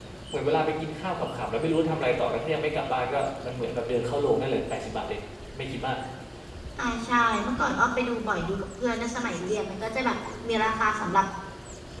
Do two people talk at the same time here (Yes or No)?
No